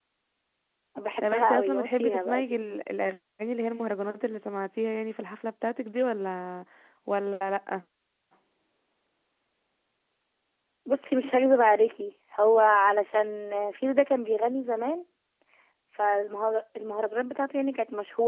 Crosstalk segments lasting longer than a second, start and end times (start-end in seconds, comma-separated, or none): 1.2-2.6